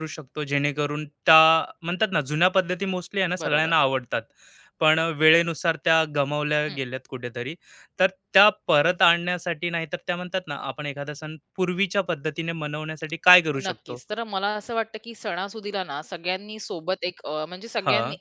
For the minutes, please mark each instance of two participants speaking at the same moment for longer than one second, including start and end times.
none

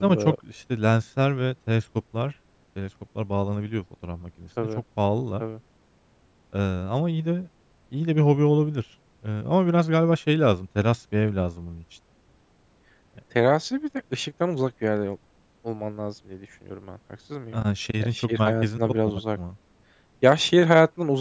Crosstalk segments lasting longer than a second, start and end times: 18.0-19.4

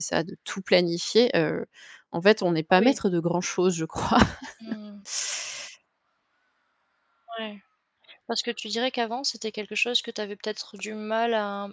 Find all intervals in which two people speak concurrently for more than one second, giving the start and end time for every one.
none

